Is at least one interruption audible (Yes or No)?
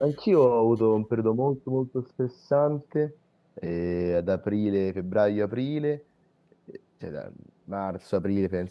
No